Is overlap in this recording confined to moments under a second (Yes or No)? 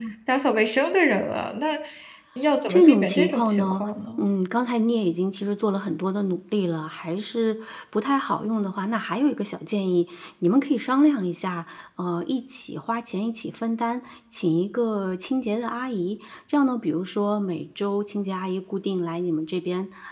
No